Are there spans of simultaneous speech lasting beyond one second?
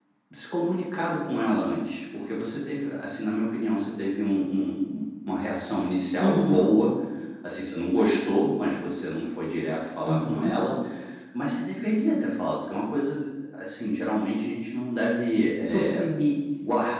No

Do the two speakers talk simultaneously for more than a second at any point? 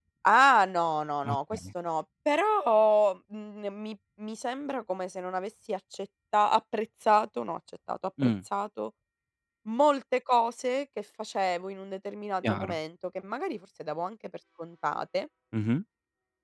No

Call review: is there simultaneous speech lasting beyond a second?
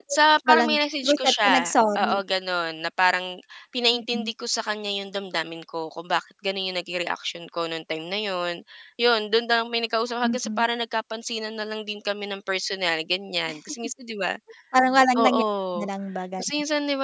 Yes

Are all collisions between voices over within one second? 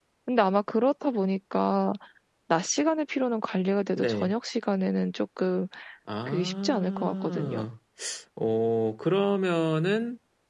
No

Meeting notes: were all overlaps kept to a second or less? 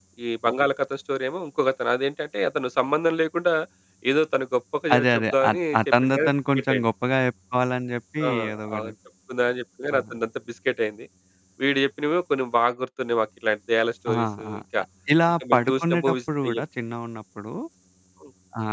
No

